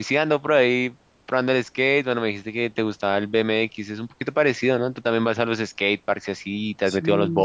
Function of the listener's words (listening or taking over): taking over